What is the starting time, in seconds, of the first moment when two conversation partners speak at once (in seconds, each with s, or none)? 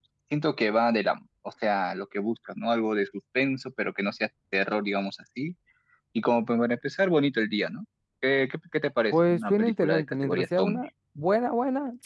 9.1 s